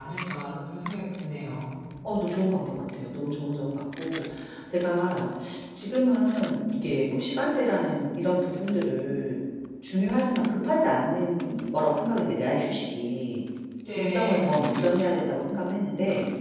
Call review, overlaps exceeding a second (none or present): present